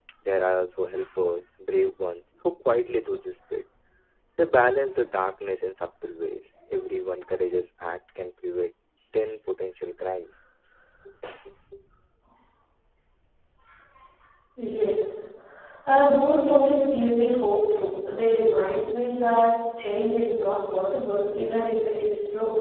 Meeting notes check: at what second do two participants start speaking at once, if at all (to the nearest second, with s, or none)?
none